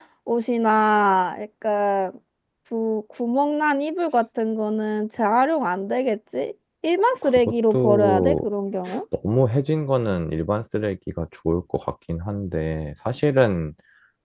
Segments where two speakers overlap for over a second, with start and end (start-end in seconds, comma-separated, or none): 7.2-8.4